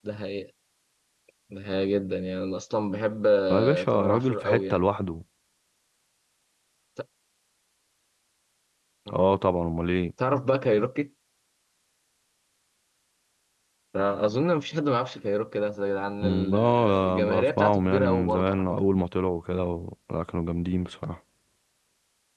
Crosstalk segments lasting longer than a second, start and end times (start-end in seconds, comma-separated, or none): 3.5-4.8, 16.2-18.8